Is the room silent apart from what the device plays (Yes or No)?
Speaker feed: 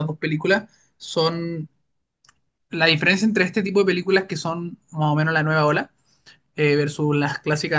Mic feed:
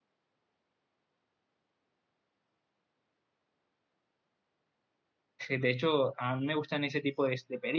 No